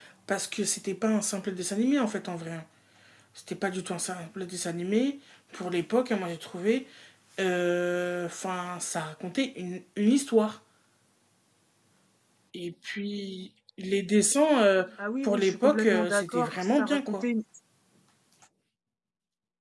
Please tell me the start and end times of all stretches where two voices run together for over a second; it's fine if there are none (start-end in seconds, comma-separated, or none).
15.2-17.2